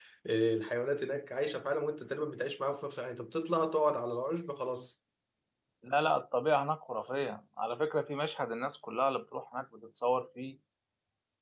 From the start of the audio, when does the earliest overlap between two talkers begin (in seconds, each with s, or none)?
none